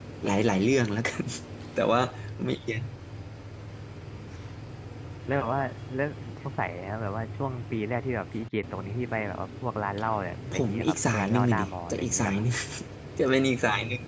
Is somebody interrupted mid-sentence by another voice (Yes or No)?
Yes